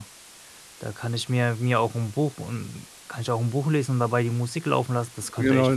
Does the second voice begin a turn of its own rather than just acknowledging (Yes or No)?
Yes